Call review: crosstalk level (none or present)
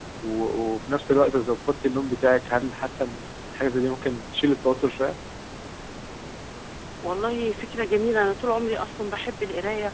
none